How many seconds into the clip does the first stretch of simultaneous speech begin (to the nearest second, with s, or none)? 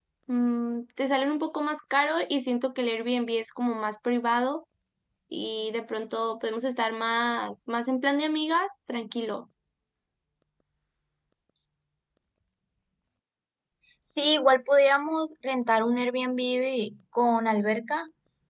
none